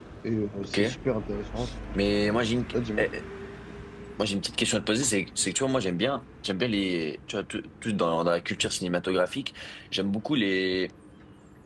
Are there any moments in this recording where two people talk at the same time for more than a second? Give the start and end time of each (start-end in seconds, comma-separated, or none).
none